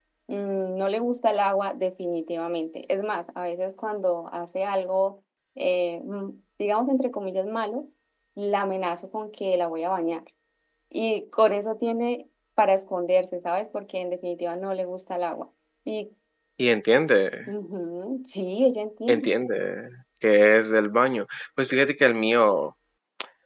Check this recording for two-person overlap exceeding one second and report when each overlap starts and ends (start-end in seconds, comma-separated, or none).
none